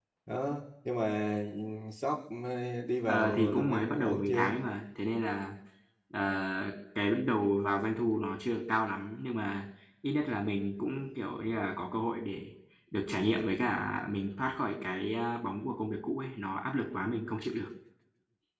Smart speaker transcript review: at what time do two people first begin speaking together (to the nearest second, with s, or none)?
3 s